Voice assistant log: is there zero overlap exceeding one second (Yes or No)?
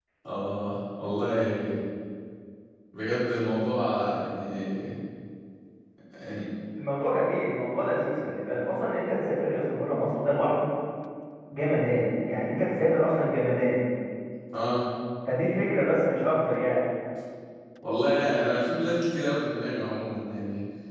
Yes